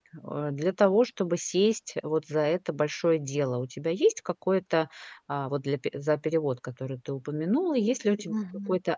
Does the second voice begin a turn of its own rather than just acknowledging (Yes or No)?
No